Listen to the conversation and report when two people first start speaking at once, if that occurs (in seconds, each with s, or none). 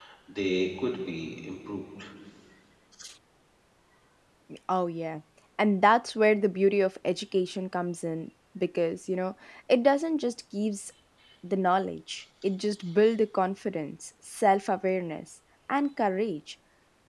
none